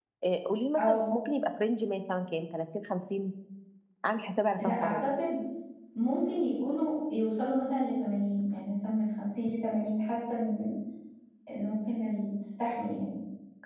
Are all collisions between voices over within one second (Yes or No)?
Yes